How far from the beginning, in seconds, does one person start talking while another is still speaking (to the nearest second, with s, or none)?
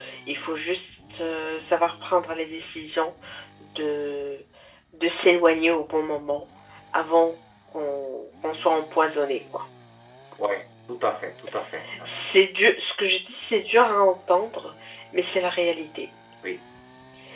none